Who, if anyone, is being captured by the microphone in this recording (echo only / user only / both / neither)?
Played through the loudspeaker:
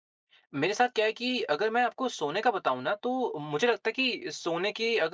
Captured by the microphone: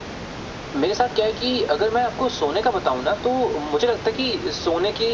echo only